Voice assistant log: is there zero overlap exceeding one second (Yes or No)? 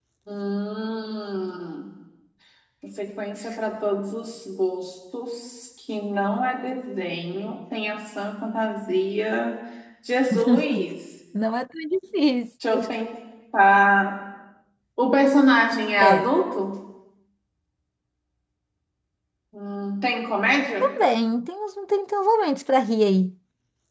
Yes